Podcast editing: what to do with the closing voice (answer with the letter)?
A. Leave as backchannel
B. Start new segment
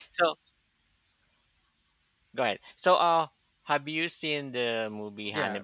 B